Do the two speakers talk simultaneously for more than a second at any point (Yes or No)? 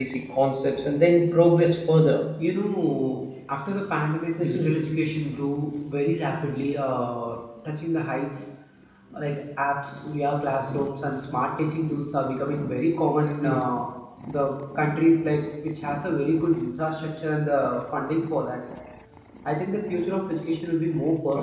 No